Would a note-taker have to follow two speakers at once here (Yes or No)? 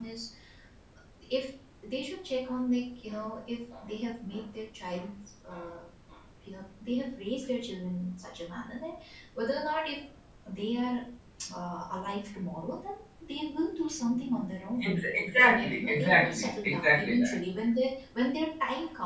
Yes